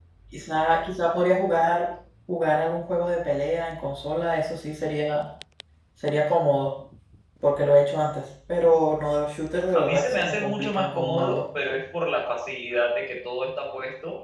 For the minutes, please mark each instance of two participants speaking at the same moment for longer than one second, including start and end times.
9.7-11.4

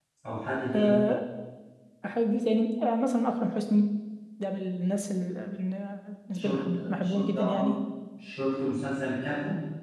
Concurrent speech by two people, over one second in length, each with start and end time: 6.4-7.7

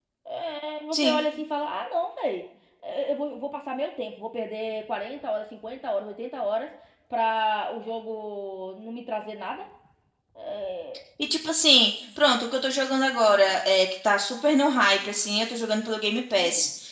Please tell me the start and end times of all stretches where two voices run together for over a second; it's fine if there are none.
none

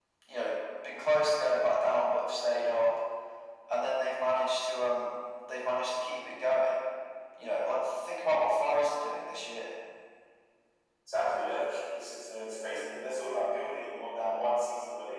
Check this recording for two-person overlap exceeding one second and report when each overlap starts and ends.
none

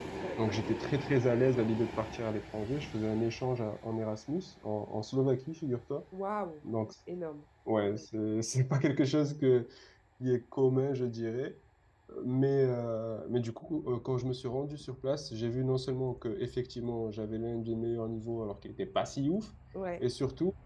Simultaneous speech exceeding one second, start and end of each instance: none

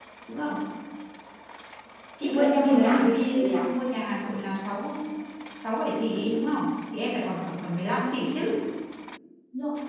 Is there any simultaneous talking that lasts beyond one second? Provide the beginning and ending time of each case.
2.2-3.5

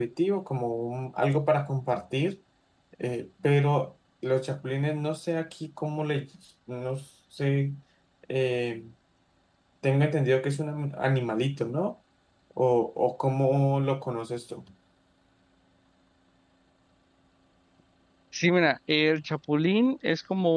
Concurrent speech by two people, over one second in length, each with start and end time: none

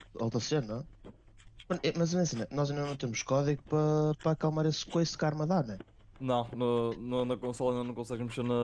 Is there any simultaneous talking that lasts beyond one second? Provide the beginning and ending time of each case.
none

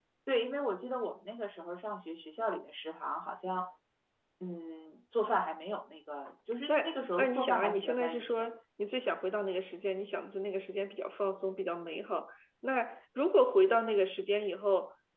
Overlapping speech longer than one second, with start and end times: 7.2-8.5

